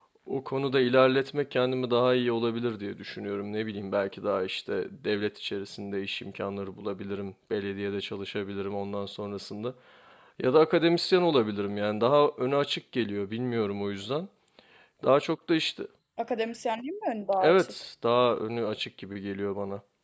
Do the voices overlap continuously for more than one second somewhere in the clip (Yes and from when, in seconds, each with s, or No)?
No